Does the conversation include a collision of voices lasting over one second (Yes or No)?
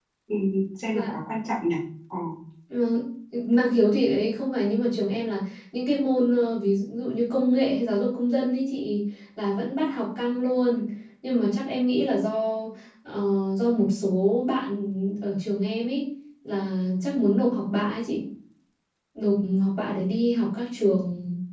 No